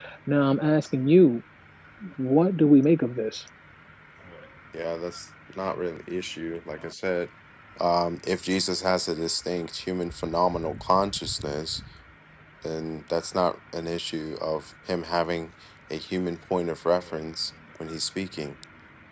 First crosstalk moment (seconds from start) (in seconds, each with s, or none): none